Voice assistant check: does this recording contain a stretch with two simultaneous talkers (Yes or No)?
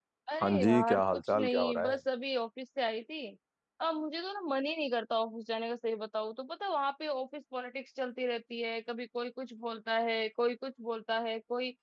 Yes